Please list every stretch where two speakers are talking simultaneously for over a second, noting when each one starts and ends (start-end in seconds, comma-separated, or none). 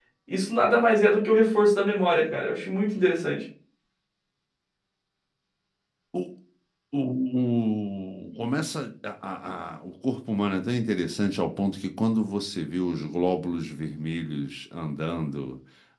none